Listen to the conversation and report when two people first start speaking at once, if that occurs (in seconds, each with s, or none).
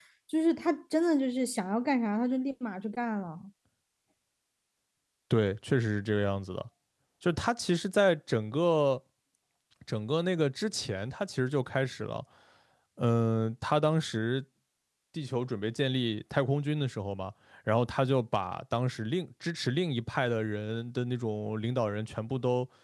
none